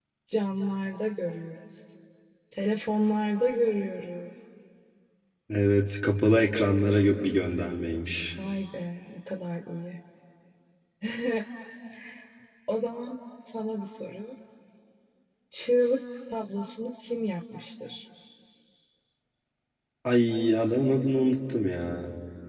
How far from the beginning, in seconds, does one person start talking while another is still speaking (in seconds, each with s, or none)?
none